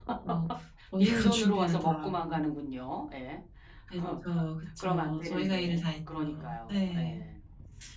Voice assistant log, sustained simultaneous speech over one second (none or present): present